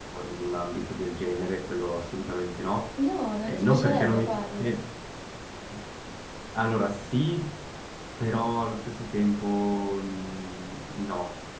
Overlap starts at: 3 s

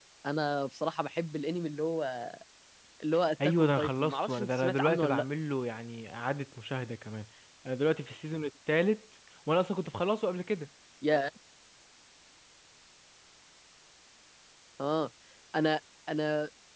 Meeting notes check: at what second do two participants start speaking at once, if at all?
3 s

